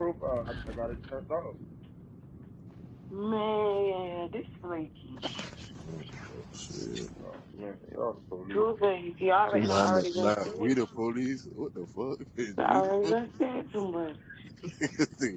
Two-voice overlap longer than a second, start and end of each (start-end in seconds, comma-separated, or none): 9.5-11.0